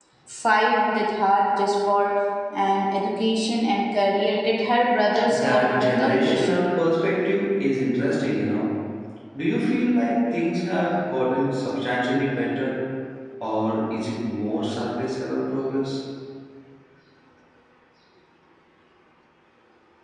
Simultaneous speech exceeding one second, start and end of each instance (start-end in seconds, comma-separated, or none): 5.2-6.6